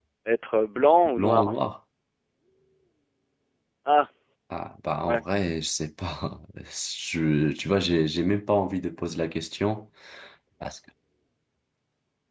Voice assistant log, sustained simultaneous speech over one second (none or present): none